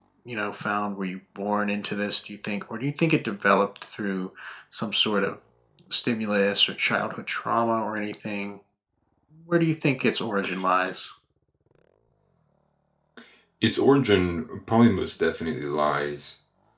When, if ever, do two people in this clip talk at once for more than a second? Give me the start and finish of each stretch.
none

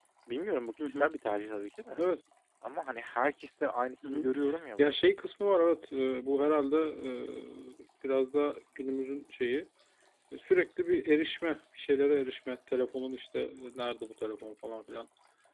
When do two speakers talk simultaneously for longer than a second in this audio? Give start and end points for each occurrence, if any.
none

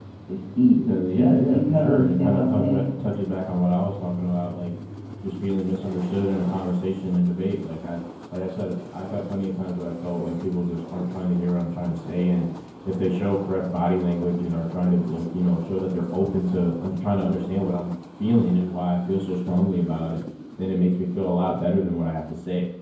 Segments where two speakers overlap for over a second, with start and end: 0.9-2.8

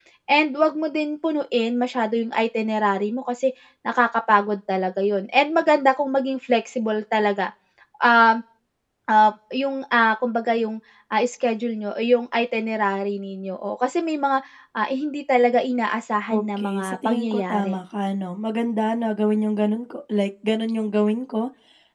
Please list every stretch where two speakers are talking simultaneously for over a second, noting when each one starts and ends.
16.3-17.7

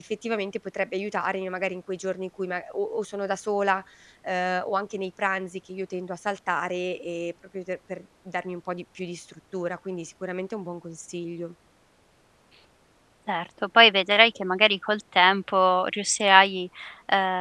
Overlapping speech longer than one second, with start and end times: none

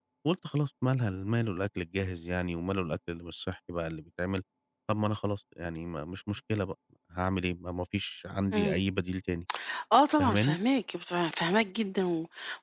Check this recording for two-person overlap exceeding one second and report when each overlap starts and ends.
none

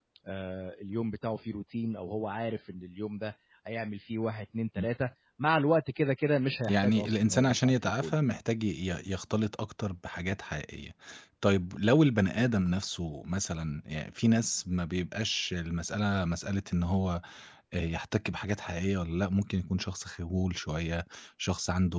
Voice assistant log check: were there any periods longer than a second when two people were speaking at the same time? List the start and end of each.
6.7-8.2

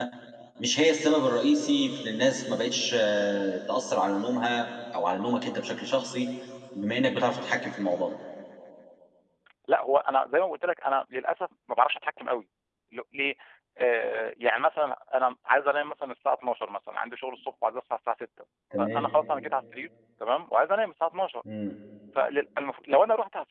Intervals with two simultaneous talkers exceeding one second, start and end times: none

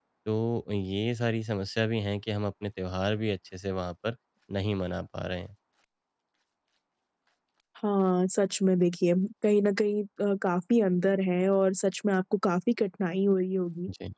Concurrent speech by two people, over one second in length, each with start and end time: none

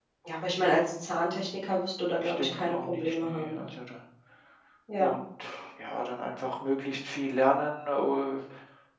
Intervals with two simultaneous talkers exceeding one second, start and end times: 2.2-3.5

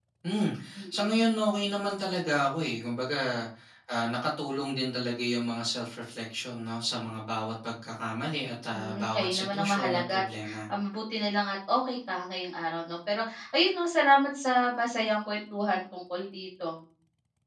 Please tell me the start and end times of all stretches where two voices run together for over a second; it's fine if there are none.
8.7-10.2

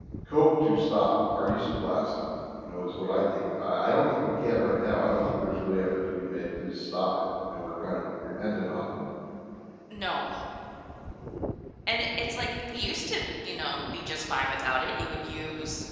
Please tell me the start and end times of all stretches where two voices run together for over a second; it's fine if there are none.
none

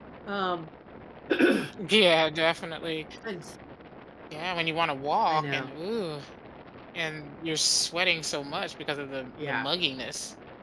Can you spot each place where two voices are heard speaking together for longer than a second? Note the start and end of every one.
none

